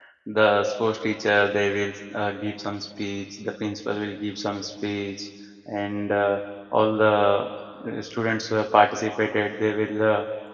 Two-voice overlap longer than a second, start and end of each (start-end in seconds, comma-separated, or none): none